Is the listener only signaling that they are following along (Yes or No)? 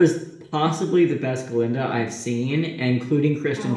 Yes